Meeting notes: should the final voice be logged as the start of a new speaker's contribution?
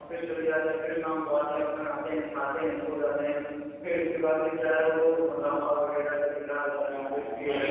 Yes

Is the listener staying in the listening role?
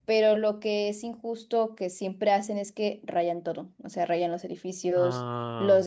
Yes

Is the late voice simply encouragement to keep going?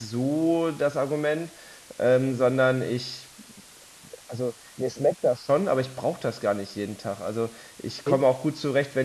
Yes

